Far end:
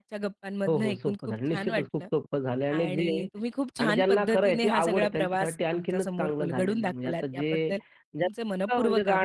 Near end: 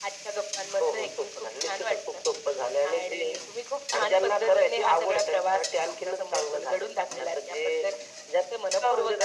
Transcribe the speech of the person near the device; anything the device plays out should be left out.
none

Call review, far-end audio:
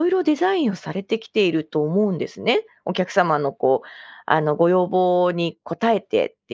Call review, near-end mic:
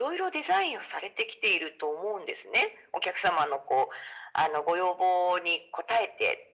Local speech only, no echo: none

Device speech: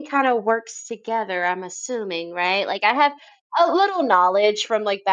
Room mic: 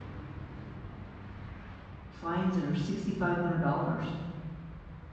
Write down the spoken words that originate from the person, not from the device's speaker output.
fines that are $6,500.

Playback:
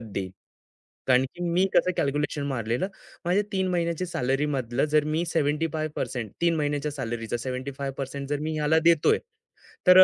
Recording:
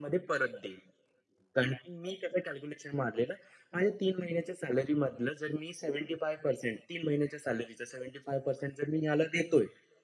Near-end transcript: none

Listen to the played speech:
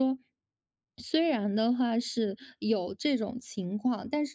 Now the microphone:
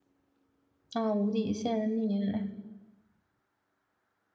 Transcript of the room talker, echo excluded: 啊，无底线溺爱，

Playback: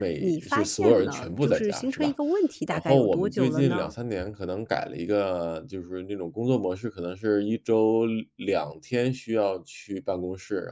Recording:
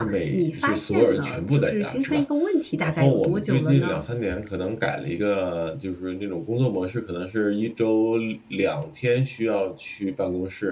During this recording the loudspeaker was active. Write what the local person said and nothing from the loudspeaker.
none

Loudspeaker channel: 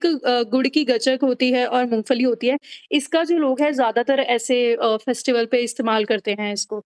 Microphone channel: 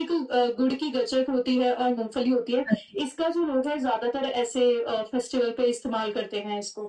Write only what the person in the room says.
हाँ जी।

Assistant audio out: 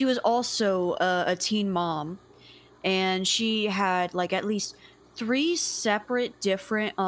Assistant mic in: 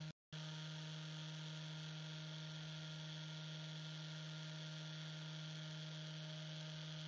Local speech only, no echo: none

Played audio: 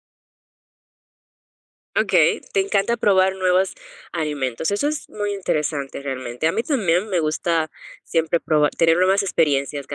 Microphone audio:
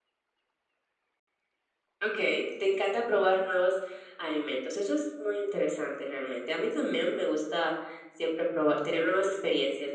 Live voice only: none

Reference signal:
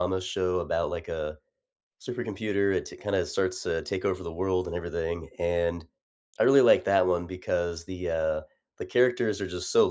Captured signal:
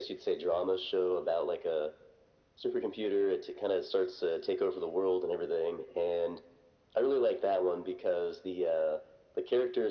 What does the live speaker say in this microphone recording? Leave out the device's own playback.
none

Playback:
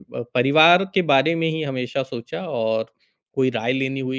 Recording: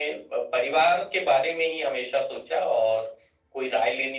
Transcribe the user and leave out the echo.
none

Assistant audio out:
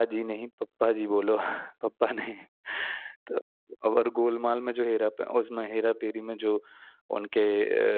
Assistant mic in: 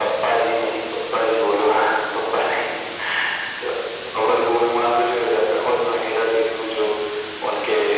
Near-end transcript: none

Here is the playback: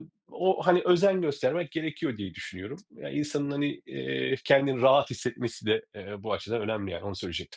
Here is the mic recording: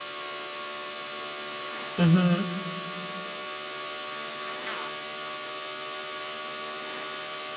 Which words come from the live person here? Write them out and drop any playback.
Hı hı.

